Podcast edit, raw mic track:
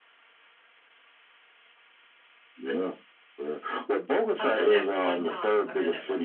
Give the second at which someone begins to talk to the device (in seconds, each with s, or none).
4.3 s